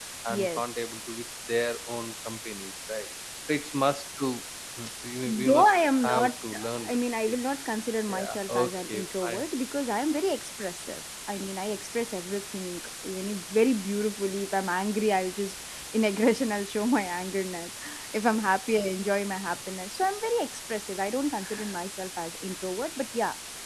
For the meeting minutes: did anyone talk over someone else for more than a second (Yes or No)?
Yes